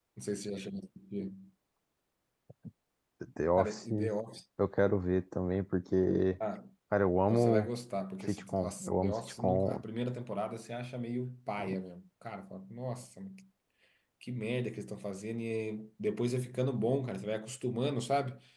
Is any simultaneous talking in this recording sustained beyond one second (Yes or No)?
Yes